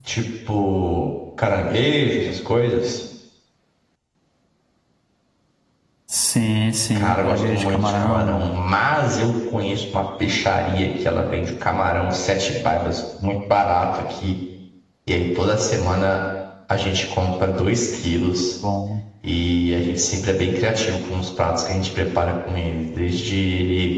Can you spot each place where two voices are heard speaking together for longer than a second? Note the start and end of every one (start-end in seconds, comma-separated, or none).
7.0-8.5